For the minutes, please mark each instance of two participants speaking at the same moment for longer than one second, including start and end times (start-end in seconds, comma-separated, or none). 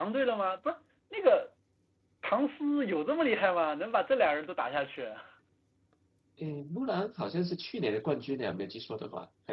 none